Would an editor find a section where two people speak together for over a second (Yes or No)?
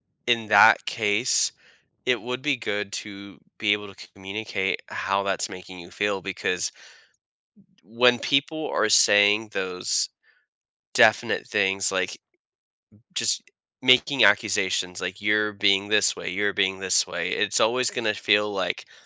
No